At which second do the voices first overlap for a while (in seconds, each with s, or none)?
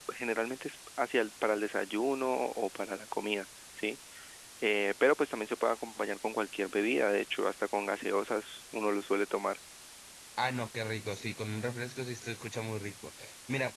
none